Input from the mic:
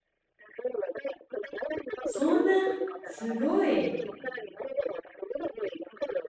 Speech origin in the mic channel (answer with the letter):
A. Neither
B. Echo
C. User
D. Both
D